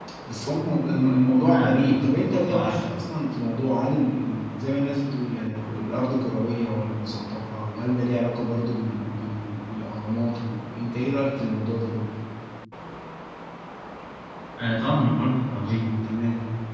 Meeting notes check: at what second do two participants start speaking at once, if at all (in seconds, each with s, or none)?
1.4 s